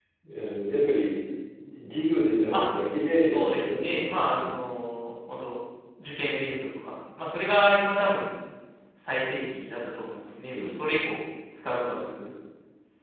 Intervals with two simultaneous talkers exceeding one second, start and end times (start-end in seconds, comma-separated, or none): 3.3-4.6